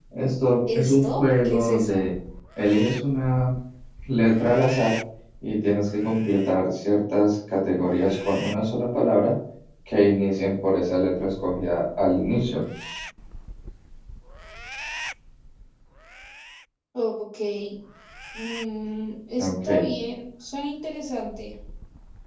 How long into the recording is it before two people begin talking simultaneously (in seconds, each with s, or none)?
0.8 s